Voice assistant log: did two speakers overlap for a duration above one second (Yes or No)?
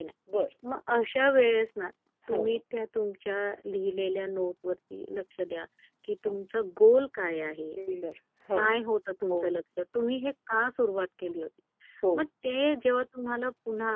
No